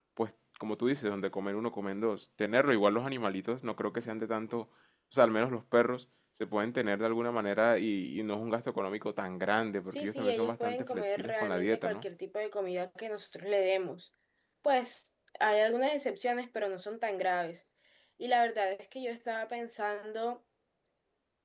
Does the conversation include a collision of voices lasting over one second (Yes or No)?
Yes